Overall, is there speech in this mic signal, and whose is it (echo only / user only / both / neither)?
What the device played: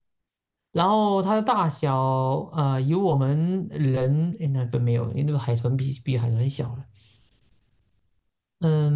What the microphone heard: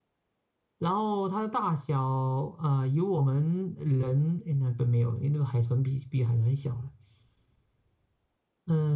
echo only